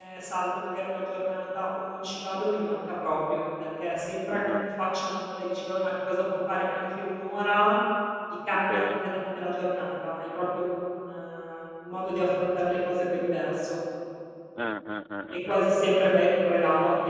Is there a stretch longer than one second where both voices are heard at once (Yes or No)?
No